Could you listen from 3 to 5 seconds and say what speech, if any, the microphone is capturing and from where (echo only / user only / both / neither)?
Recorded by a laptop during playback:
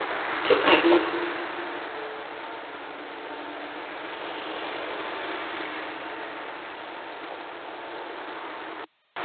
neither